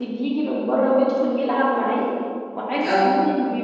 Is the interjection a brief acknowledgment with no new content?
Yes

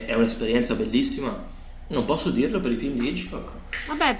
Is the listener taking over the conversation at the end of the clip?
Yes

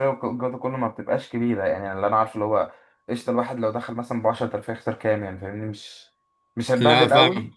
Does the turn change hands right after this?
No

